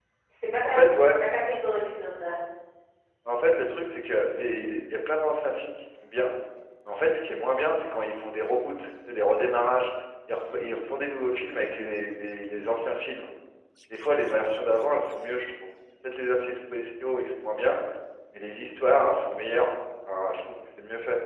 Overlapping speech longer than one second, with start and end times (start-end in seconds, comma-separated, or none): none